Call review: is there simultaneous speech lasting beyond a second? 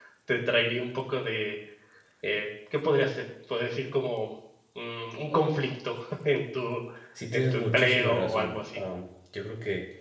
Yes, from 7.3 s

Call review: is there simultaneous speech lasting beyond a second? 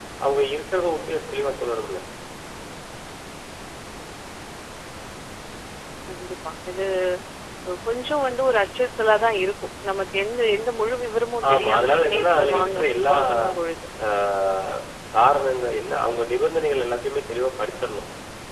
Yes, from 11.4 s

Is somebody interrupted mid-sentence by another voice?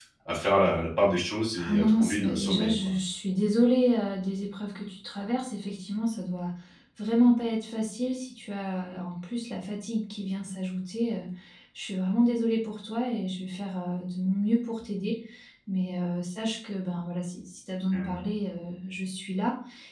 Yes, from 1.6 s

